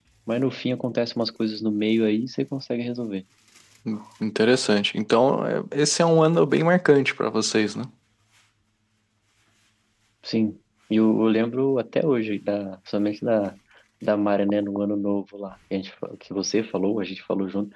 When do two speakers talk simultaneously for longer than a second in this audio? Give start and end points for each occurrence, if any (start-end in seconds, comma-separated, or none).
none